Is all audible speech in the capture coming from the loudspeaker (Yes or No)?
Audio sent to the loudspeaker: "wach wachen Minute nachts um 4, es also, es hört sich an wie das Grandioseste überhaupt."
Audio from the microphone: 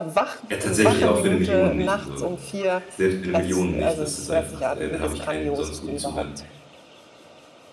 No